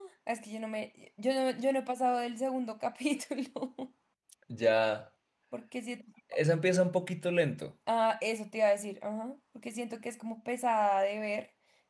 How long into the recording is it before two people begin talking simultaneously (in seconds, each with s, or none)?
none